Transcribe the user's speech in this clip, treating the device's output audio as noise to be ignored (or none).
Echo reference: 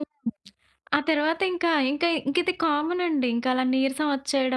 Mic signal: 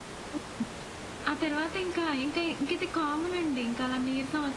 none